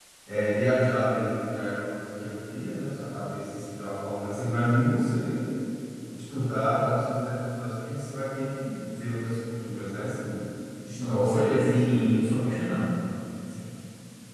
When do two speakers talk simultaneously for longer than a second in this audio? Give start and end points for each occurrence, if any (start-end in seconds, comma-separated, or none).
11.1-12.4